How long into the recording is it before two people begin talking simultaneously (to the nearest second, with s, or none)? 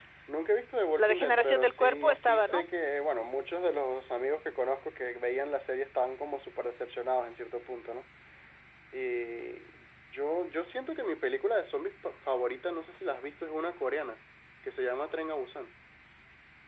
1 s